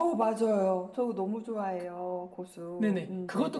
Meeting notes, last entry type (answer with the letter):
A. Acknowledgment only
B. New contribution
B